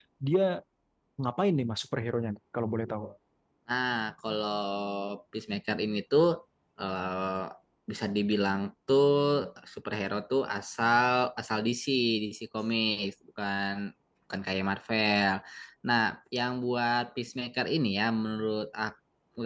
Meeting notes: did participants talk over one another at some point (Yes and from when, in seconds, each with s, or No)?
No